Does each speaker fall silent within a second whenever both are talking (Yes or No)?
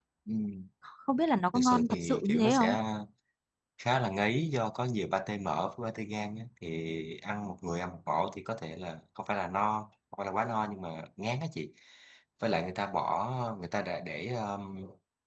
No